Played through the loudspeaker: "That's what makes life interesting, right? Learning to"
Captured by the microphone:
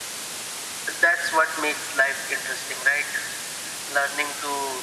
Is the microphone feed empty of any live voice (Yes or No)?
Yes